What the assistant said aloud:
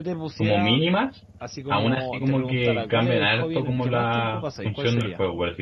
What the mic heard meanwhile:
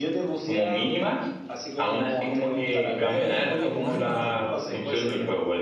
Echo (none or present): present